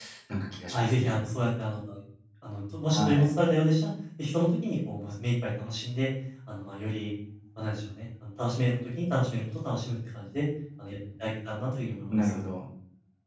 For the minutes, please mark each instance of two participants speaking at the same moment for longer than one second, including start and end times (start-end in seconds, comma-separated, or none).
none